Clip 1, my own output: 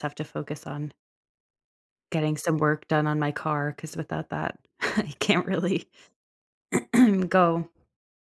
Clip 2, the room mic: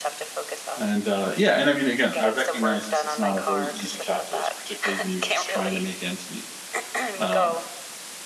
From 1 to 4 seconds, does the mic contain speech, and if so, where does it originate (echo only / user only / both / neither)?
both